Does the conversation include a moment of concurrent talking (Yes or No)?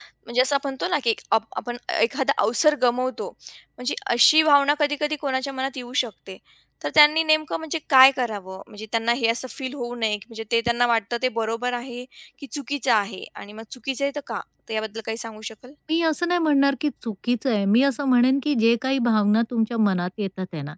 No